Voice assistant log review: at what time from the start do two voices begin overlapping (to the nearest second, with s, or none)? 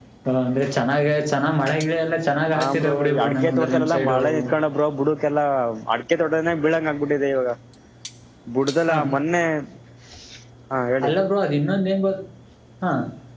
3 s